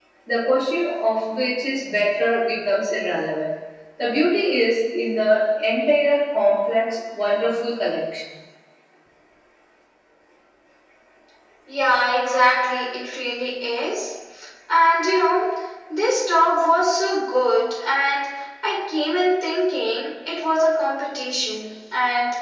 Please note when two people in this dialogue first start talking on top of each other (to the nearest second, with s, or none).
none